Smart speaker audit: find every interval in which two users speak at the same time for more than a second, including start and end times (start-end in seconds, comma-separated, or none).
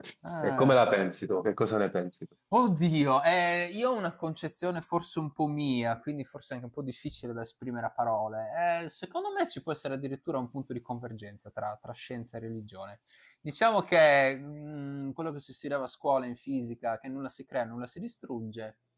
none